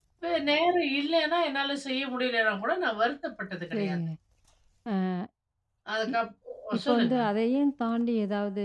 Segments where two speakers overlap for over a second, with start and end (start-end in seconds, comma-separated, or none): none